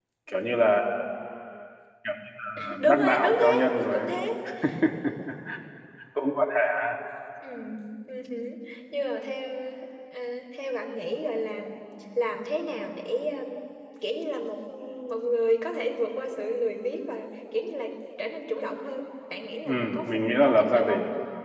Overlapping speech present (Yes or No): Yes